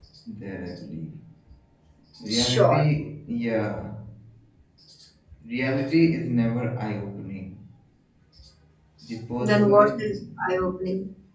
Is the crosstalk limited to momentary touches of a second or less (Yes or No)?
No